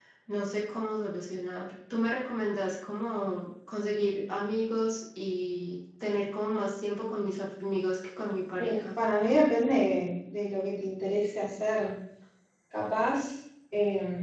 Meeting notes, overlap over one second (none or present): none